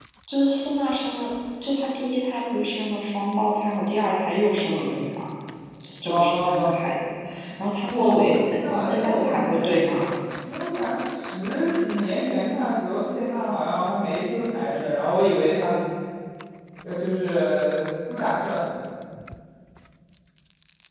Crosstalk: present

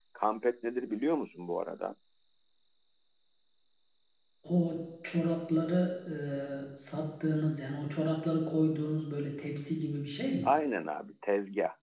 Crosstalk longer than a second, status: none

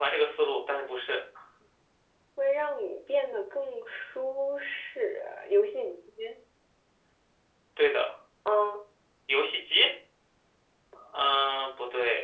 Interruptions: none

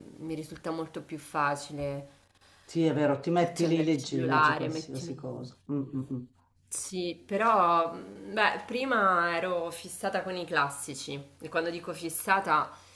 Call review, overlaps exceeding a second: present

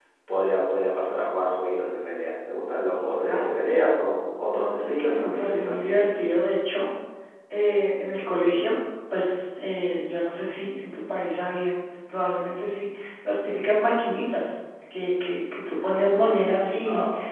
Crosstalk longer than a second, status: present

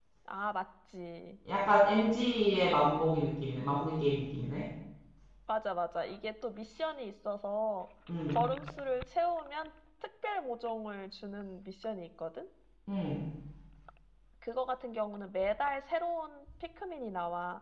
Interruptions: none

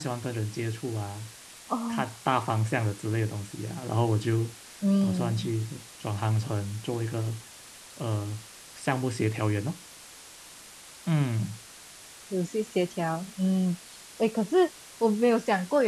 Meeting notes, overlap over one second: none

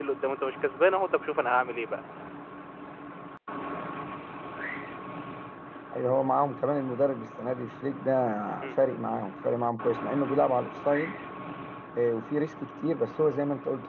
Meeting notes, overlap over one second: none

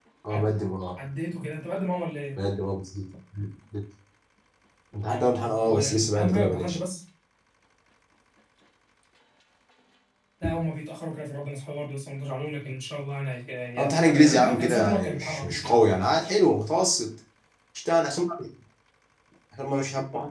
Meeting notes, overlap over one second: present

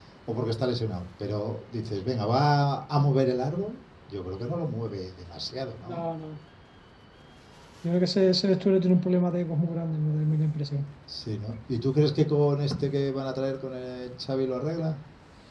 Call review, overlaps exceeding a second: none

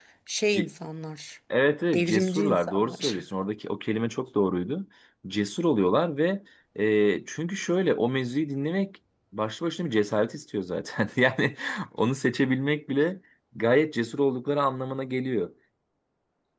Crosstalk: present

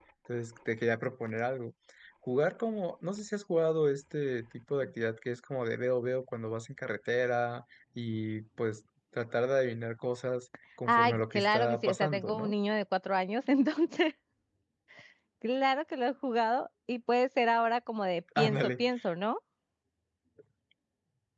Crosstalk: present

